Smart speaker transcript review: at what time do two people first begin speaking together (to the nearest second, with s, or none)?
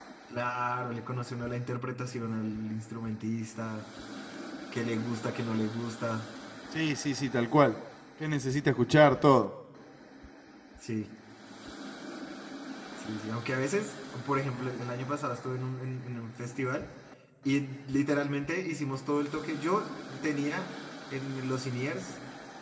none